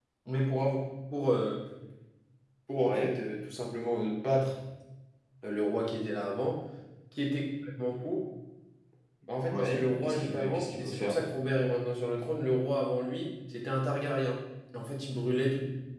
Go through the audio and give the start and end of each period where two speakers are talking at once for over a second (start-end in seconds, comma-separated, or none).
9.5-11.2